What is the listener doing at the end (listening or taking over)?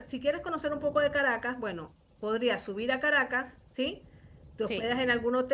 listening